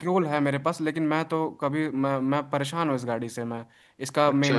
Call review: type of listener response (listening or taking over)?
listening